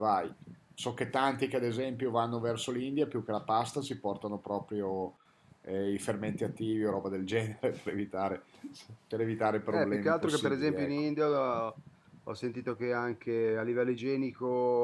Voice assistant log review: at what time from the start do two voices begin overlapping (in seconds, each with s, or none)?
9.7 s